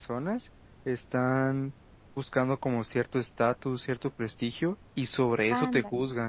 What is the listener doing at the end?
listening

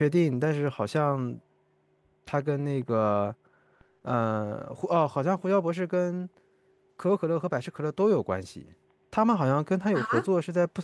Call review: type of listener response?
listening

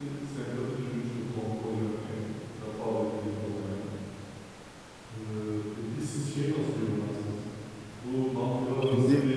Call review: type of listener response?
listening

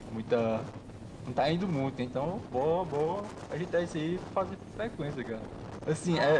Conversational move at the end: taking over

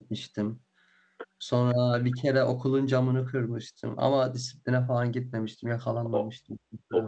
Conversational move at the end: taking over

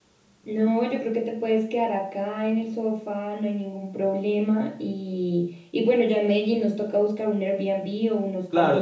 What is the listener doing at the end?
taking over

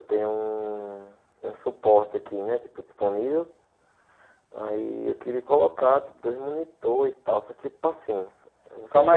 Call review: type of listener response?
taking over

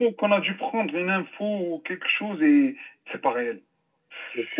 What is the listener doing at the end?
listening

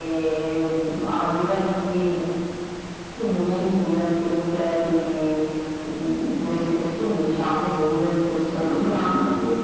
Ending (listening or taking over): taking over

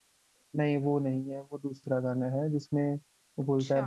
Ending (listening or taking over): listening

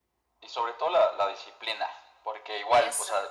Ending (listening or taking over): listening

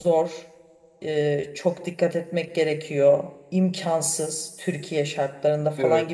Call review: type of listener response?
listening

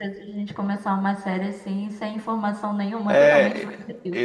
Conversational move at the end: taking over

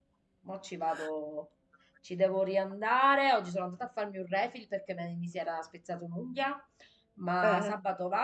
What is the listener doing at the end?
listening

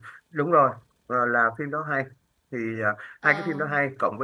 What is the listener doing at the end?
listening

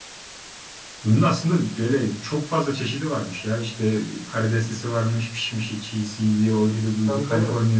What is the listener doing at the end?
listening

